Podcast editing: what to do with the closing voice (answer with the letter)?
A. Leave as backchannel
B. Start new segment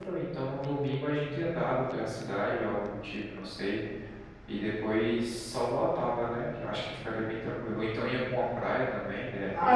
B